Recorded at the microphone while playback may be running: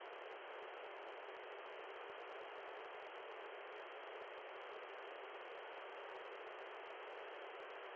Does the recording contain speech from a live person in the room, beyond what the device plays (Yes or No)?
No